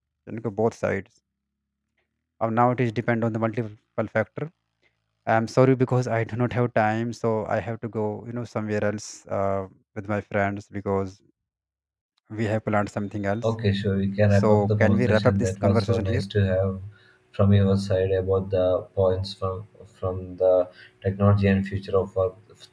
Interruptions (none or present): present